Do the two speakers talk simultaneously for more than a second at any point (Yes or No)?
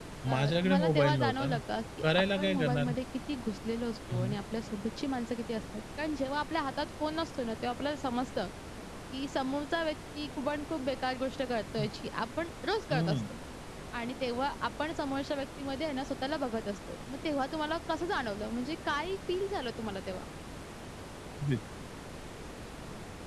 Yes